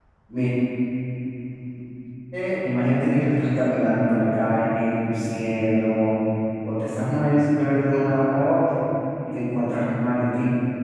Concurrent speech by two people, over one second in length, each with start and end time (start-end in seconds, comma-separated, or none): none